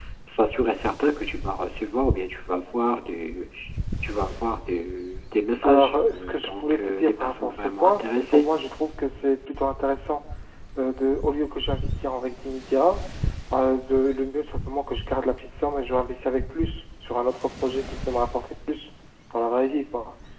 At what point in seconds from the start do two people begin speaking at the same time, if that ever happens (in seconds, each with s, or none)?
5.6 s